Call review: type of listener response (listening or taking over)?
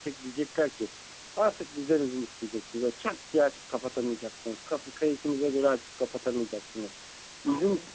listening